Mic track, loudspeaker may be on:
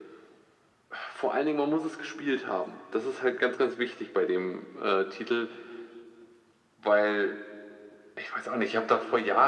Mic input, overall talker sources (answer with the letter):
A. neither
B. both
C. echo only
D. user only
C